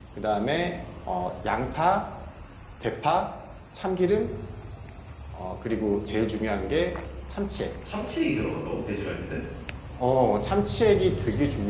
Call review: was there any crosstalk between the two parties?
No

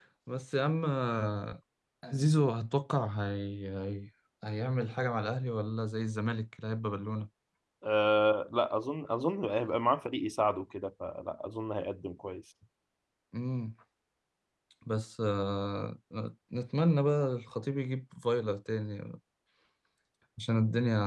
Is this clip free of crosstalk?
Yes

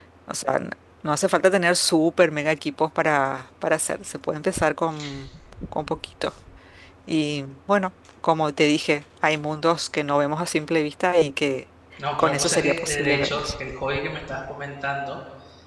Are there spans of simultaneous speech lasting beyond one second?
Yes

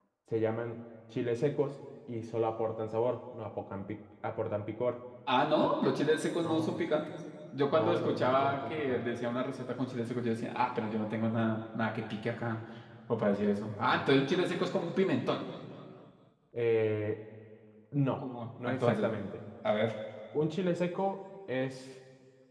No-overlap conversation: No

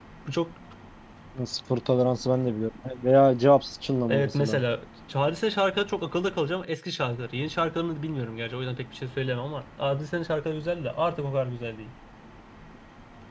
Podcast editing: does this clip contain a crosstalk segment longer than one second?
No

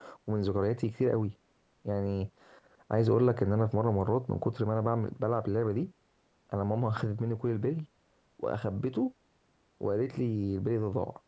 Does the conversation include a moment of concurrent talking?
No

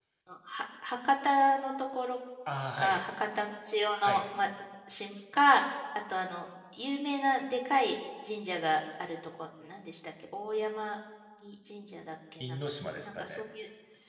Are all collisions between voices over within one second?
Yes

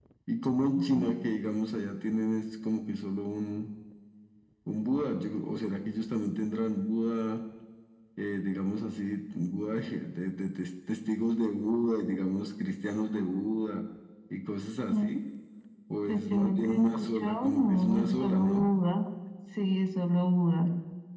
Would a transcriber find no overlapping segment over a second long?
No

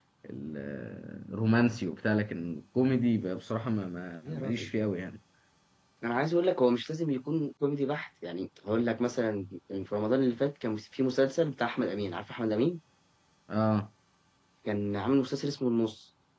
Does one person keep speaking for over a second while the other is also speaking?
No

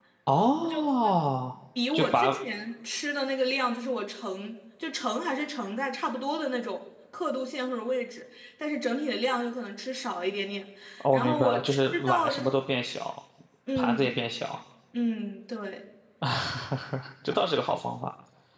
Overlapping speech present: Yes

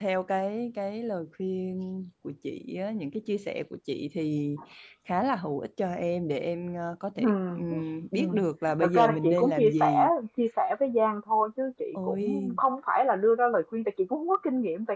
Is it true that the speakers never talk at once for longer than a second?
No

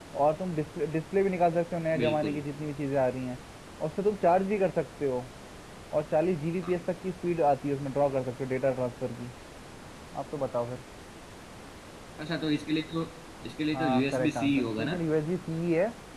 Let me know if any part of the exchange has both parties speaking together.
Yes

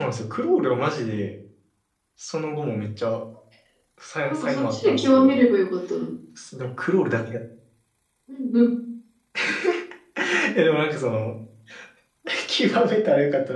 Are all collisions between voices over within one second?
No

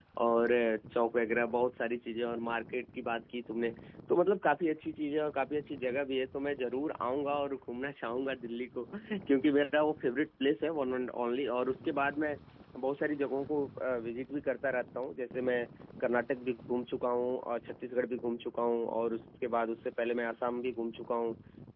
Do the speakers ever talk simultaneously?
No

